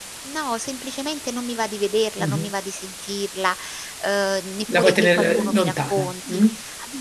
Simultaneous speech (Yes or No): Yes